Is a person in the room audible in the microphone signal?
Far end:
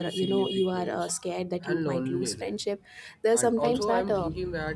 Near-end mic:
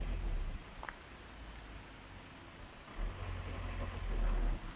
No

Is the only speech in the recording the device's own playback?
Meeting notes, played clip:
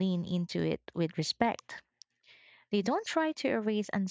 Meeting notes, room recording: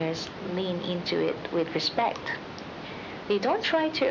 Yes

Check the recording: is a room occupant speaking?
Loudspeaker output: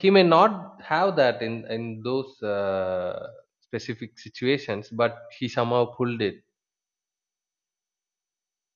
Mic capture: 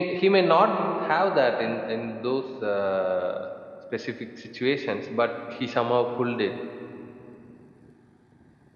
No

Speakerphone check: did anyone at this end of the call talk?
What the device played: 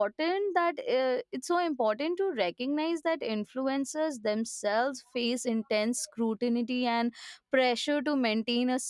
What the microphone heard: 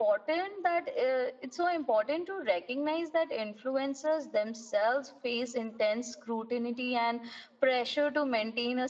No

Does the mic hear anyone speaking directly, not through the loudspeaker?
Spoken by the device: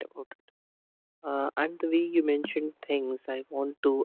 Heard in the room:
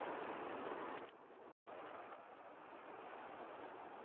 No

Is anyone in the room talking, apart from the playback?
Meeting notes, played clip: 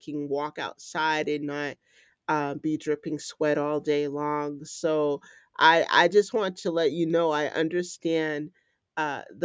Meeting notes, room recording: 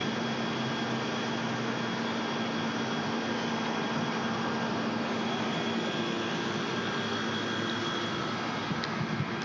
No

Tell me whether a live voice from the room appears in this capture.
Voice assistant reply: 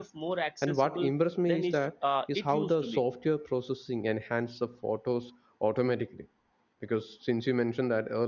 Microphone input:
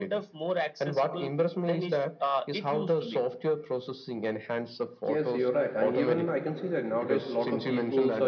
Yes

